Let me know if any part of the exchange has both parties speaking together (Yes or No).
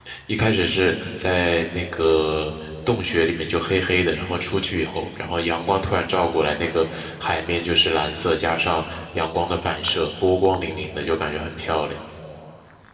No